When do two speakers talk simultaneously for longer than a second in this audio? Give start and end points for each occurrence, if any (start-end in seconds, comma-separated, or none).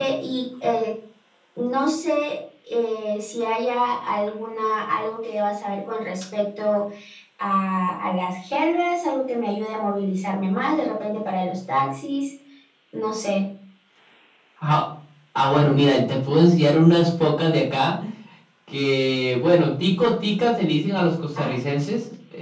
none